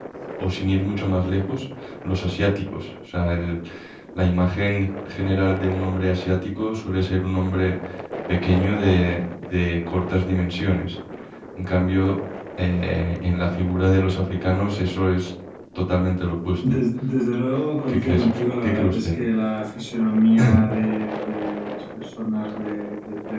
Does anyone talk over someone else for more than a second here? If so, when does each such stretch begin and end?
17.9-19.1

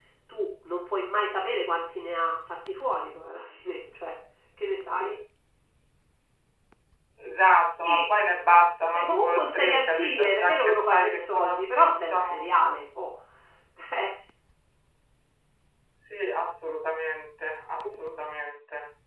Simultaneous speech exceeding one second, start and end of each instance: 8.9-12.4

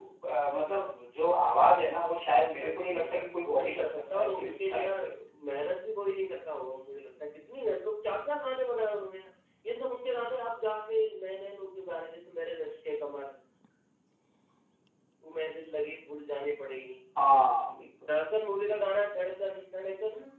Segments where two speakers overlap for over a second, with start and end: 2.6-4.9

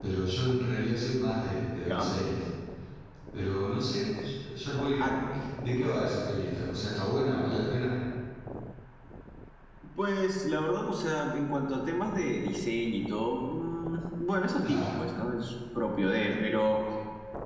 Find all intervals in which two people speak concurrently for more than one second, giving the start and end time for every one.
none

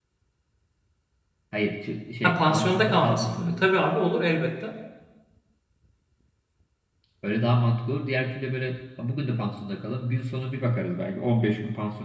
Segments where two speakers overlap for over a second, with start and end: 2.2-3.6

